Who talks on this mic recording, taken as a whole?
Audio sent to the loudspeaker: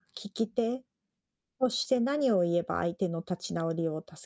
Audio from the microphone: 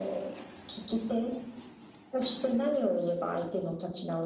echo only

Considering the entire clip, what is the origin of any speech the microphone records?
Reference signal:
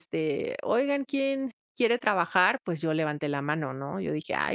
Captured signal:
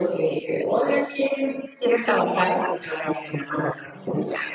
echo only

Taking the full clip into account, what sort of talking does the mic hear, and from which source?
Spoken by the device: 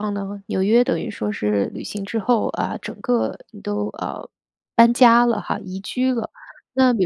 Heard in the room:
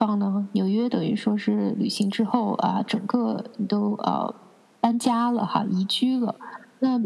echo only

